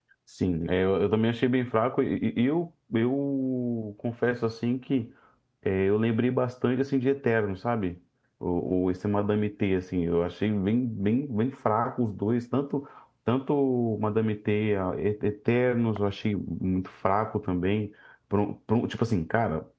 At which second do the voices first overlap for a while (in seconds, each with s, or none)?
none